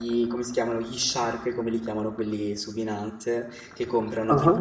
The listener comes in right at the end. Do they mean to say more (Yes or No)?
No